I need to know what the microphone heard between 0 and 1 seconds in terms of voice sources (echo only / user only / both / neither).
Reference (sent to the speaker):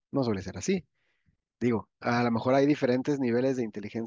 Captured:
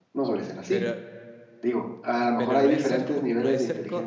both